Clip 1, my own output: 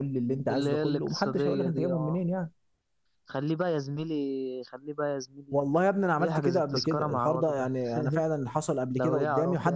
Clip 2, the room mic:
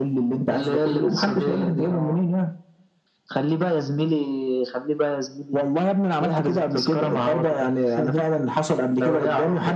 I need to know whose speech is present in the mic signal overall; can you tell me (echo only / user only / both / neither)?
echo only